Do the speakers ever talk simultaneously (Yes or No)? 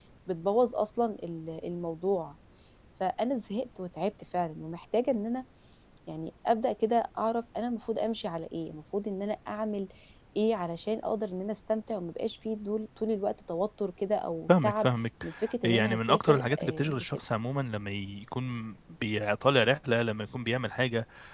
Yes